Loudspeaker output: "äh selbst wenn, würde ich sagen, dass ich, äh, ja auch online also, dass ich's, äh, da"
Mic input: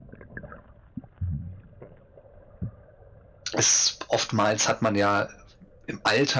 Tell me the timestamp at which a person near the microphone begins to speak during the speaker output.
3.5 s

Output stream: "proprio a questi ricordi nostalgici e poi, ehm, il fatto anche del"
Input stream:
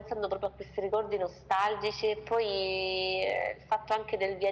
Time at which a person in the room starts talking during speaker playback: none

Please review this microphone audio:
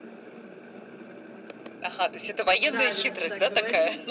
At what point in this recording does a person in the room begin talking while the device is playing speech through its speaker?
2.6 s

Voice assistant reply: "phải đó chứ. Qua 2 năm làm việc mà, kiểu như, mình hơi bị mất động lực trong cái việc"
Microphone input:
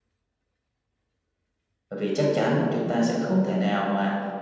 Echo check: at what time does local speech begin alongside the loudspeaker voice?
1.9 s

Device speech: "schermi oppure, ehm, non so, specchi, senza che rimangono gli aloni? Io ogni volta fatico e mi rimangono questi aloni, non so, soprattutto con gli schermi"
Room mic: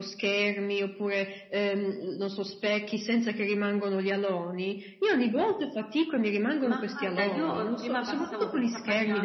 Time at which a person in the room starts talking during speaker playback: 6.6 s

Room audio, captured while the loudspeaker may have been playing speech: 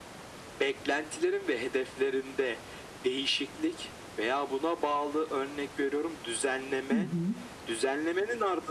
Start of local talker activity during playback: 6.9 s

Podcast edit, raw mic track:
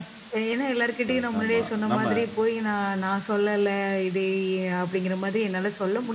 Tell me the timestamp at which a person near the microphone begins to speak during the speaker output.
1.1 s

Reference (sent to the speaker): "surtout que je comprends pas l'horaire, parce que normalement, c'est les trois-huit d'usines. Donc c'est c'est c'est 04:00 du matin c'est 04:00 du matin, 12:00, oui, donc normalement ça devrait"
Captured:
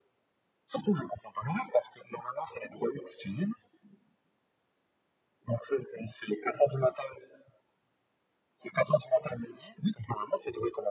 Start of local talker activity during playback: none

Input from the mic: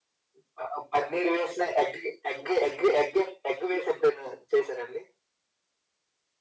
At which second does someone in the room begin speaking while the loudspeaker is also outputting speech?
none

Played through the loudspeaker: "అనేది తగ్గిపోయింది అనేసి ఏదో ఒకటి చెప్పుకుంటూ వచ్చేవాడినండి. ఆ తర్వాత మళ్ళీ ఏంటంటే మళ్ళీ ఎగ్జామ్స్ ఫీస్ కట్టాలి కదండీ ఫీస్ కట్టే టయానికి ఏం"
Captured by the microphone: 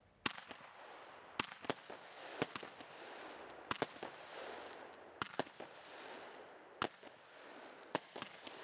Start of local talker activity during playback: none

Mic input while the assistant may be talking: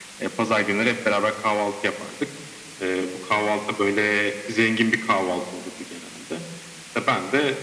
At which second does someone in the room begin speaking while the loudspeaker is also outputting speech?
none

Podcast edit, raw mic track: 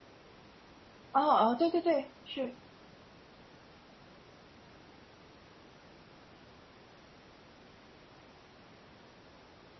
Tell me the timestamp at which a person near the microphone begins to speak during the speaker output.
1.1 s

